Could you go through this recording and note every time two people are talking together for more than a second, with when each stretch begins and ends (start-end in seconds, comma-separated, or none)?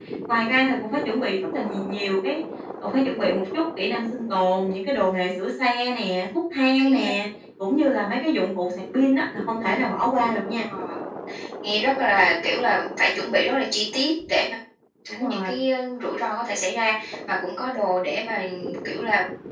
none